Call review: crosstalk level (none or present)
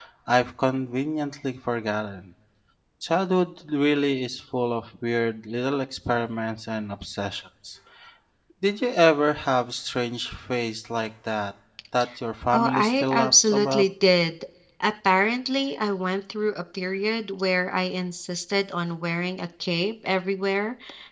present